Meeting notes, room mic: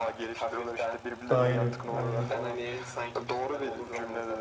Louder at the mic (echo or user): user